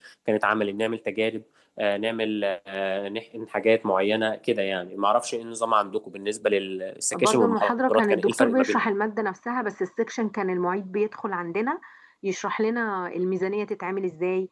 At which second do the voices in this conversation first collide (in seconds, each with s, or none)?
7.1 s